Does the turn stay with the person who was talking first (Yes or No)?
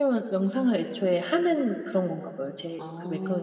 No